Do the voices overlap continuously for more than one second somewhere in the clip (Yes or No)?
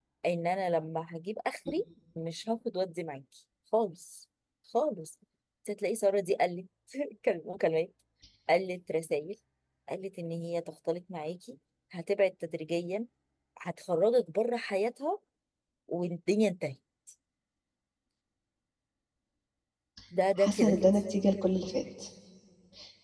No